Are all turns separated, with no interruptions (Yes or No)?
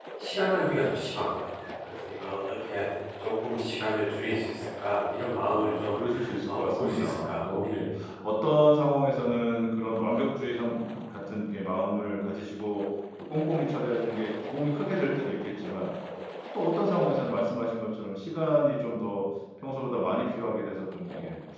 No